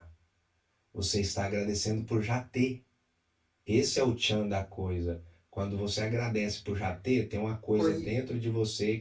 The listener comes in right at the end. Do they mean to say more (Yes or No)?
No